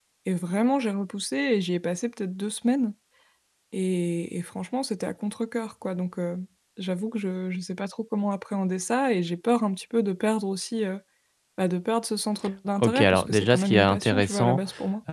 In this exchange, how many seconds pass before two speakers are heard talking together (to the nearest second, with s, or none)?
13 s